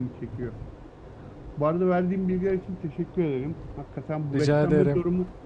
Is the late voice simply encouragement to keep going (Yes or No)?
Yes